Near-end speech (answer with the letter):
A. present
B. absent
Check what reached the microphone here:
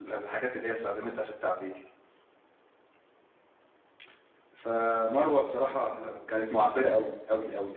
A